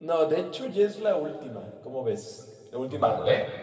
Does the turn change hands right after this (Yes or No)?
Yes